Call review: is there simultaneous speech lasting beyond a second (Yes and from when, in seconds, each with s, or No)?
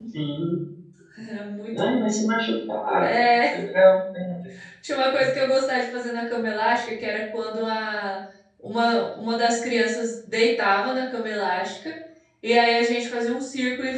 No